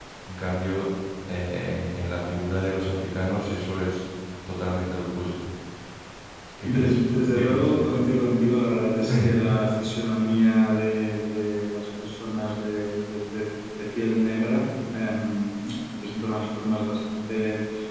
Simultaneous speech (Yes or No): Yes